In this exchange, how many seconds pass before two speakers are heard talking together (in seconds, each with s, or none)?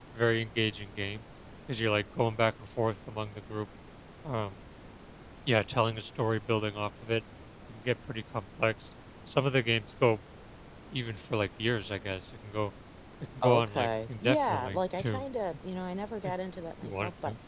13.4 s